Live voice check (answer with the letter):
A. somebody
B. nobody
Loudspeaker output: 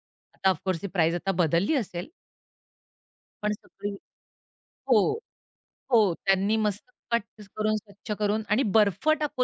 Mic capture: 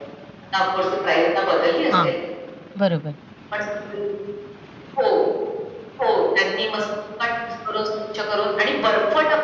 A